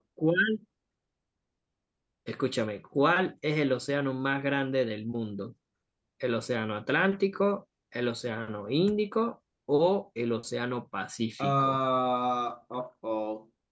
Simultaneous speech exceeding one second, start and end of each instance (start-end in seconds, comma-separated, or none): none